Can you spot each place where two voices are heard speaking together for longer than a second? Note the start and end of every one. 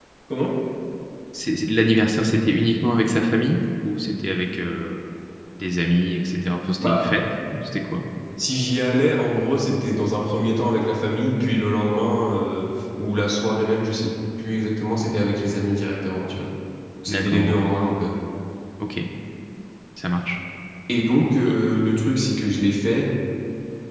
none

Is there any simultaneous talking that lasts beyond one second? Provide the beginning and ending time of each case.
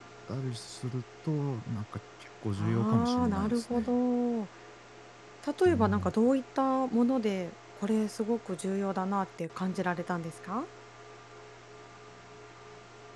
2.6-4.0

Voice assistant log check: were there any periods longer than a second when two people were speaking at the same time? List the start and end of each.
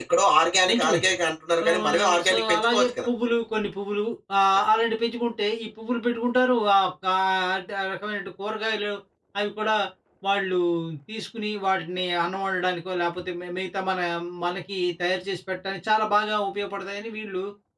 1.7-3.1

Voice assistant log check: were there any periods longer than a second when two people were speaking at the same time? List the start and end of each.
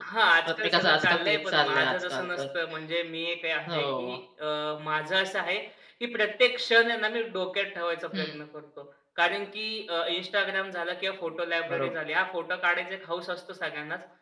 0.6-2.4

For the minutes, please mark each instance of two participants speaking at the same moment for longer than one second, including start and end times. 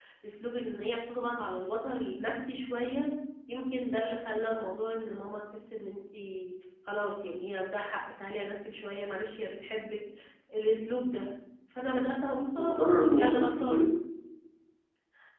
12.6-13.8

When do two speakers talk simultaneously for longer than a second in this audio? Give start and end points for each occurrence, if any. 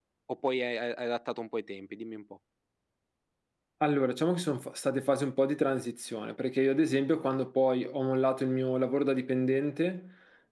none

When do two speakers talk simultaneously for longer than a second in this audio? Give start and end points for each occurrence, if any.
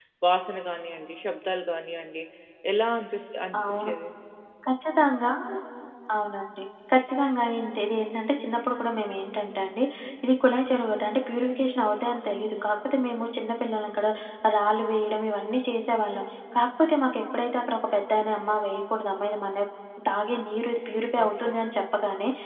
none

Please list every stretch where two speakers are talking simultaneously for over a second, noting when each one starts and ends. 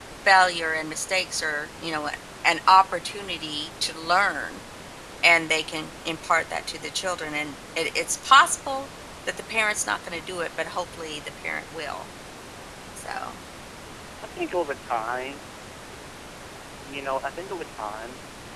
none

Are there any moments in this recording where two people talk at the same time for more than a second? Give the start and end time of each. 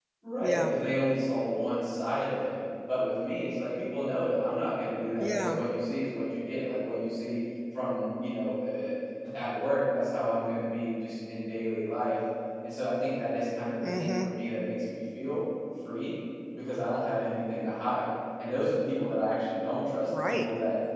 none

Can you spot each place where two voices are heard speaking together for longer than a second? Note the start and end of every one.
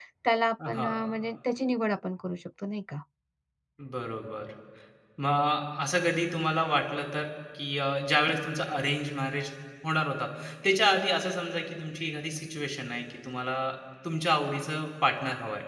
none

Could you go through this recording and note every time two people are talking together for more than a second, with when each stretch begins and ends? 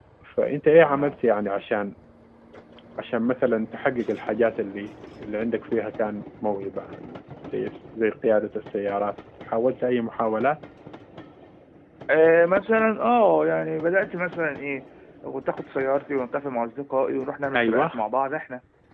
none

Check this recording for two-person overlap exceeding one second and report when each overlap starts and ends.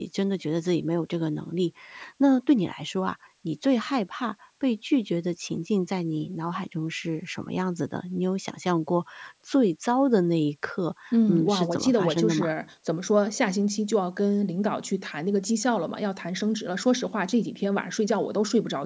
11.1-12.5

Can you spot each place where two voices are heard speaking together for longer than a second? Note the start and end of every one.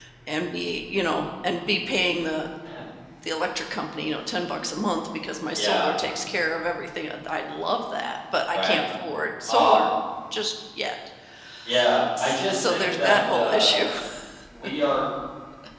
12.2-13.9

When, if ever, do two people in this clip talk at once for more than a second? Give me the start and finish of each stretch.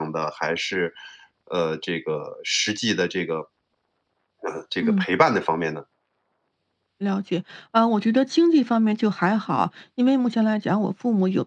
none

